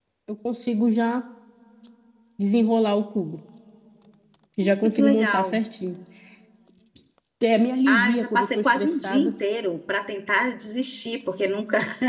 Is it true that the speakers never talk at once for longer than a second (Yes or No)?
No